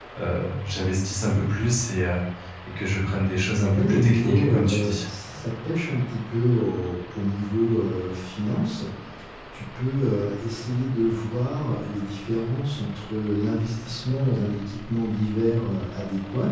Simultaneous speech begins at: 4 s

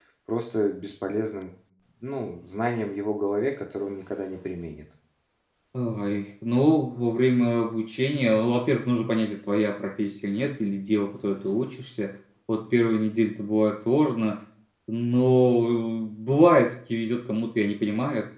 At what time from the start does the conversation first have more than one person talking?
none

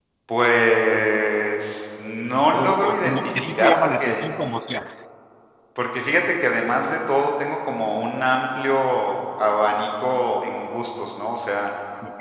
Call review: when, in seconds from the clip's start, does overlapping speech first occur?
3 s

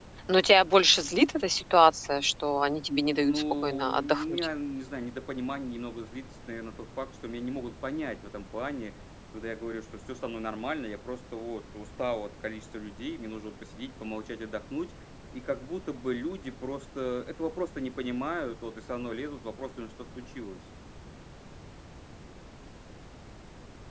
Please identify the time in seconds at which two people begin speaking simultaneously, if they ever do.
3 s

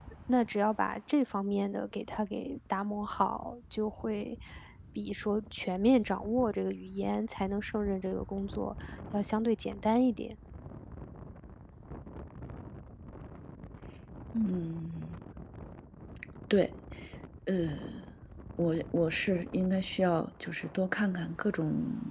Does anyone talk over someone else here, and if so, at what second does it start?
none

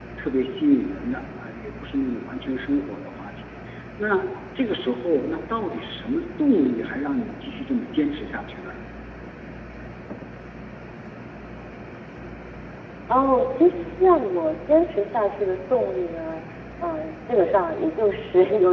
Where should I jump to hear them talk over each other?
none

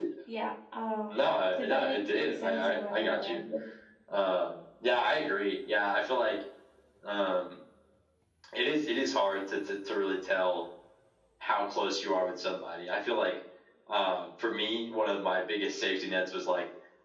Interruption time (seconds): 2 s

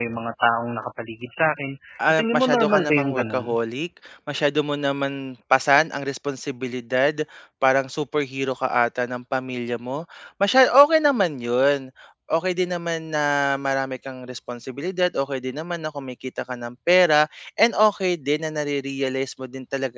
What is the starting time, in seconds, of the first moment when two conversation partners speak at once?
2 s

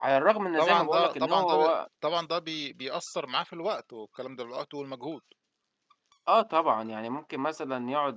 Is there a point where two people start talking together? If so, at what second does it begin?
1 s

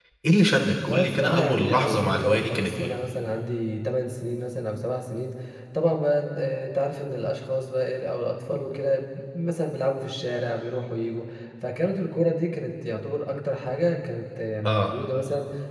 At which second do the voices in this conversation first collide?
1 s

